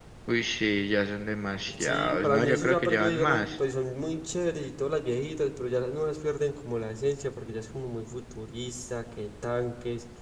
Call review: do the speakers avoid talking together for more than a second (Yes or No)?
No